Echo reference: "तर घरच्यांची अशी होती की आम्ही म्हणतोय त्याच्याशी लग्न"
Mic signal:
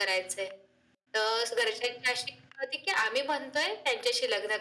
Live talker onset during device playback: none

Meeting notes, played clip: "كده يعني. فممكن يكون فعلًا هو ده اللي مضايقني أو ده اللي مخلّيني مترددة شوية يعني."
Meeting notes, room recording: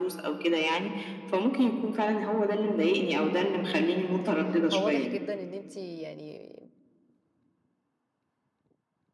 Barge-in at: 4.2 s

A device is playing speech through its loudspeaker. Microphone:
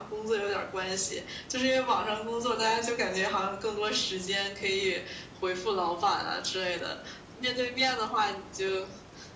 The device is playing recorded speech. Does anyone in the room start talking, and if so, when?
none

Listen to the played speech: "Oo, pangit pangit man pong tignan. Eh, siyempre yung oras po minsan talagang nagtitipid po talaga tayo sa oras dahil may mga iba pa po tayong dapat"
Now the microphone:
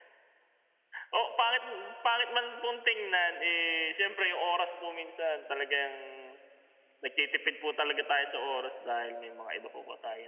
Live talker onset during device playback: none

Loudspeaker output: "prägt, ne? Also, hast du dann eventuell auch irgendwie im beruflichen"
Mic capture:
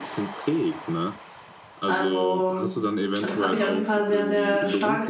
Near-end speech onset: 1.8 s

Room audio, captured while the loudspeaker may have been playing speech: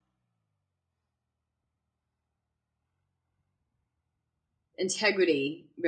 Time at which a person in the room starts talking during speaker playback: 4.8 s

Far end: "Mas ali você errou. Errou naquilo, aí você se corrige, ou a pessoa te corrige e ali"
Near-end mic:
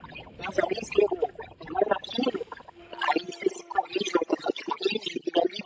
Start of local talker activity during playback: none

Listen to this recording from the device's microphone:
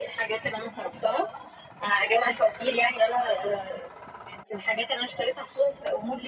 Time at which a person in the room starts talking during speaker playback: none

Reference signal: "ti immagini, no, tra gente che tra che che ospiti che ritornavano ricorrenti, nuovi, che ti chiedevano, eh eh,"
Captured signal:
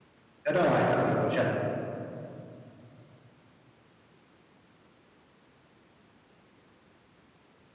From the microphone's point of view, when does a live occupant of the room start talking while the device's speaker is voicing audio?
0.4 s

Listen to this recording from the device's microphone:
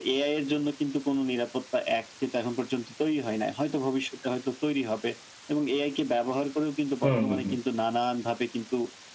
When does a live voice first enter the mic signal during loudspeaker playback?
7.0 s

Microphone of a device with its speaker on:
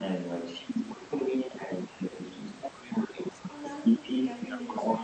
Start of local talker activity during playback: 3.5 s

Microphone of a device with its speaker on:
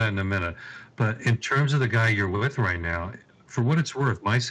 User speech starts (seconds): none

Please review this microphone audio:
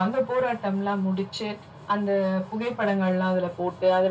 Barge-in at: none

